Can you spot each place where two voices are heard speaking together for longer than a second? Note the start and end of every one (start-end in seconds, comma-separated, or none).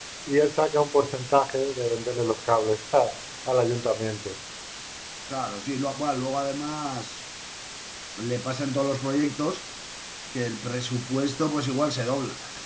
none